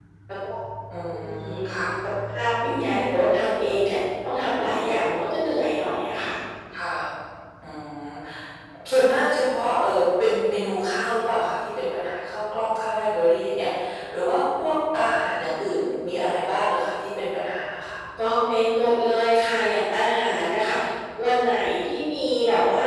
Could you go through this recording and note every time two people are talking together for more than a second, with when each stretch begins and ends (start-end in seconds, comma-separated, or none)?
none